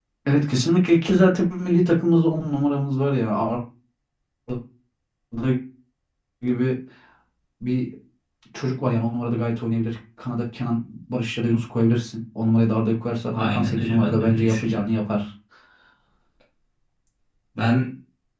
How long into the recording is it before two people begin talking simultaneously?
13 s

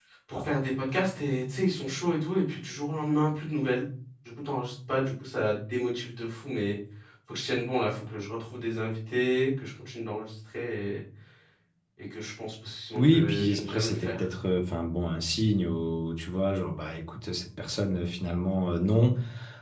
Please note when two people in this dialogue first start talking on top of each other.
13 s

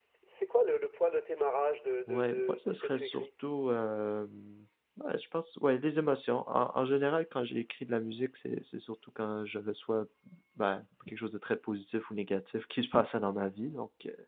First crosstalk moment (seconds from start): 2 s

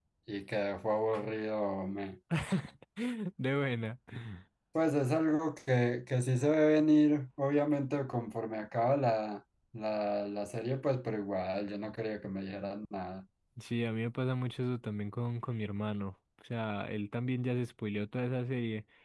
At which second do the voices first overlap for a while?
none

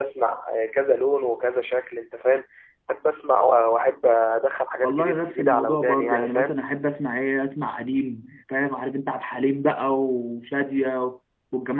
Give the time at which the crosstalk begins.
5 s

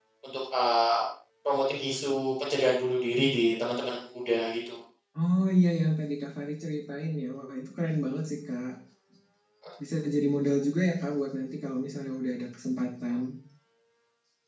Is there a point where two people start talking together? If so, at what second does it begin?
none

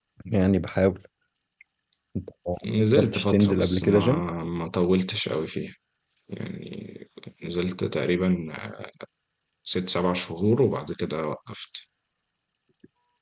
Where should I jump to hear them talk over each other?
3 s

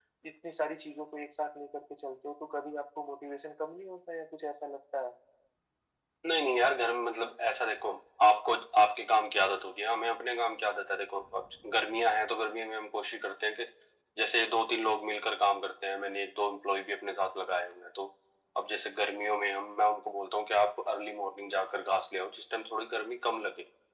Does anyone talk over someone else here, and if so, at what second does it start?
none

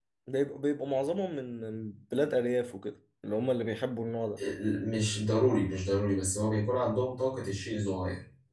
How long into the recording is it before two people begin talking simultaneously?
none

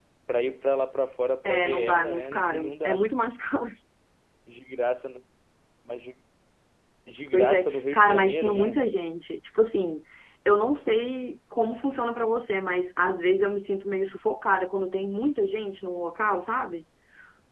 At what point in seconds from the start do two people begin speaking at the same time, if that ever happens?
1 s

